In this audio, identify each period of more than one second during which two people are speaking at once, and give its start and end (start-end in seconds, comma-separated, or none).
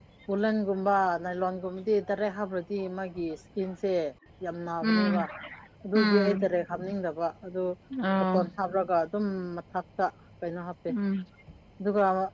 none